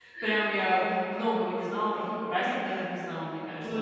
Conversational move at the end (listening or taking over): listening